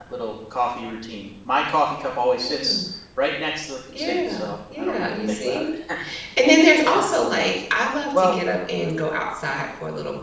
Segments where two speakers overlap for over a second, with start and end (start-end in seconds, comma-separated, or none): 4.0-5.7